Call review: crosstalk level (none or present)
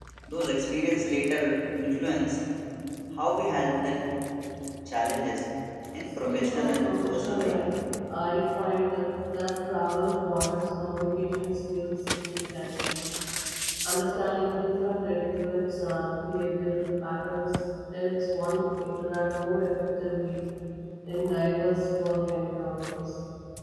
present